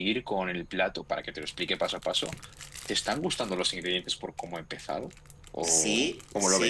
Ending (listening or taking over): taking over